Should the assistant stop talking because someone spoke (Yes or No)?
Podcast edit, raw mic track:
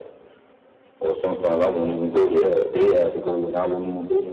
No